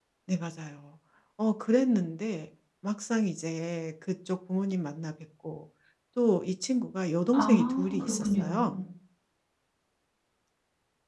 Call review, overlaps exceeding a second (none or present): present